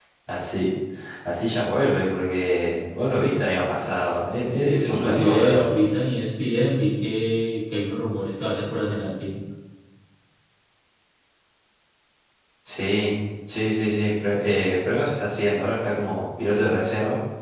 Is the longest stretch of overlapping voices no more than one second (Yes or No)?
No